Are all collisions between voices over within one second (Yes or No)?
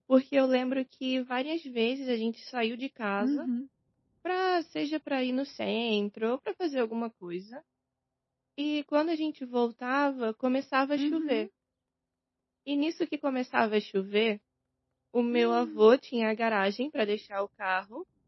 Yes